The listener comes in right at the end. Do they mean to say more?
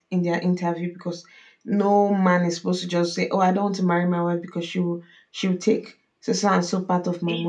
Yes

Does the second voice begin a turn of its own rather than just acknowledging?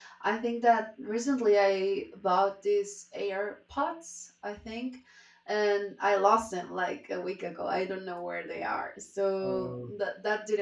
No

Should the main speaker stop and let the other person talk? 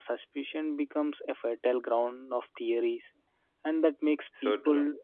No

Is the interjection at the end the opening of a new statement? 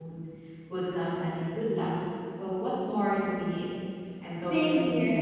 Yes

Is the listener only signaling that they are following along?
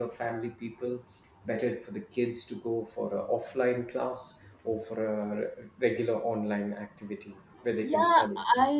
No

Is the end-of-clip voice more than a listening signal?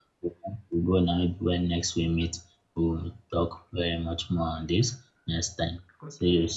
Yes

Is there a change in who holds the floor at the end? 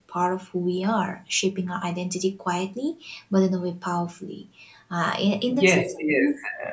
Yes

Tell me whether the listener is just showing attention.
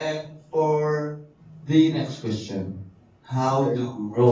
Yes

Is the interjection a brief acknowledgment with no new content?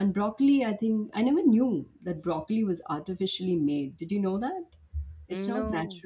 Yes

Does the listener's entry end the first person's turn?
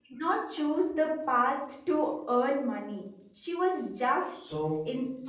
No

